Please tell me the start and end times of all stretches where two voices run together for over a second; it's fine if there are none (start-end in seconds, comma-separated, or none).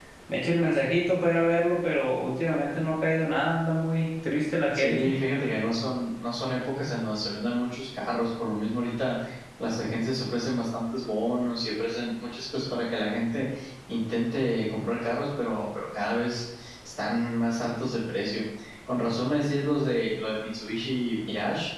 none